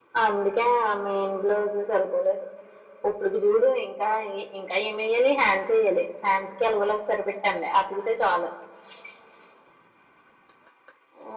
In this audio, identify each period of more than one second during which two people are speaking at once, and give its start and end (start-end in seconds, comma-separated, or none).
none